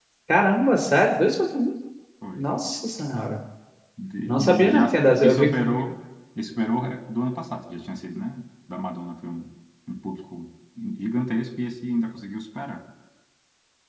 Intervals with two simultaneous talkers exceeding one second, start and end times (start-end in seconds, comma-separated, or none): 4.3-5.6